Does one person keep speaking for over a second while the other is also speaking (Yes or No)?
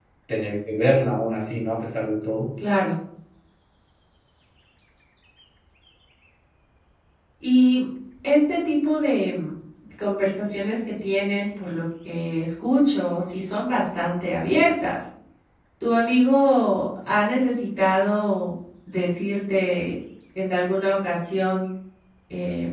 No